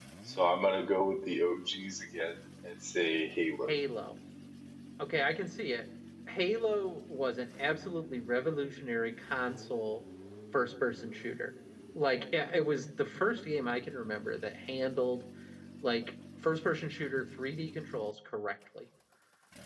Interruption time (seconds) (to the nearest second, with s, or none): none